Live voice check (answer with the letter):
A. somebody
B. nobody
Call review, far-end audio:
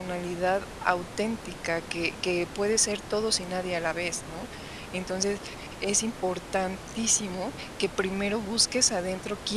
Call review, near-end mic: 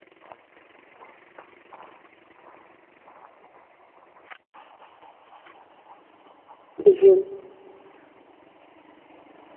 A